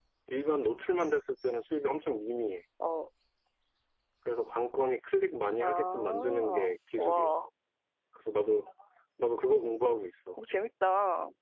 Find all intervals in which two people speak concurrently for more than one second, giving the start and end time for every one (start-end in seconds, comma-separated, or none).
5.6-7.3